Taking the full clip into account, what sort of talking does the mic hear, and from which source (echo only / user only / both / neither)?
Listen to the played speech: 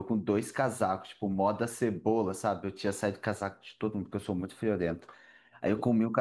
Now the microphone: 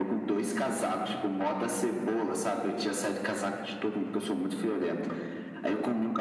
echo only